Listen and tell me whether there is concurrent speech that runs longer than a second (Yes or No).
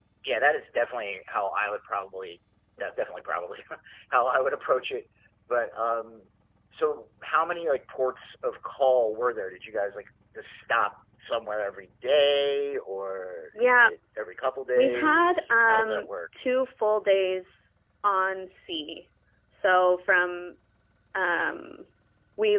Yes